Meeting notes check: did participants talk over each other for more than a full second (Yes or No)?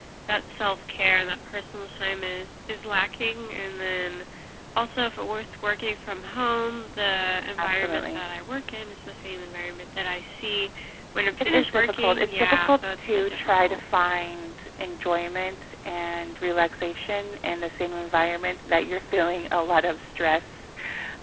Yes